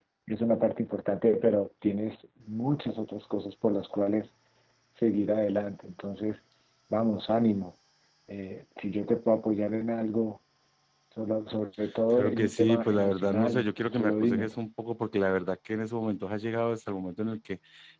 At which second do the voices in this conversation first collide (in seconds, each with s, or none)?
12.1 s